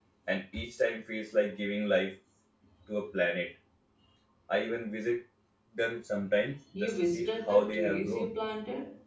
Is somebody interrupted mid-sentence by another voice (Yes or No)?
Yes